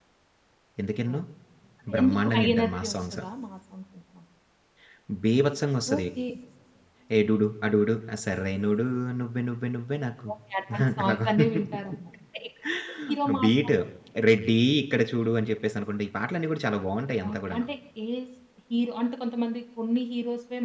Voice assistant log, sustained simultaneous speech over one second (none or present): present